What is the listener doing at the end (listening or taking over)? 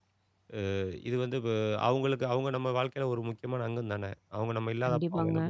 taking over